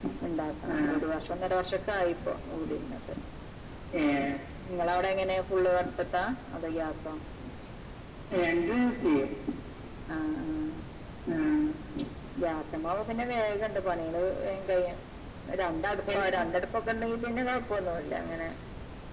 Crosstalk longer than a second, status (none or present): none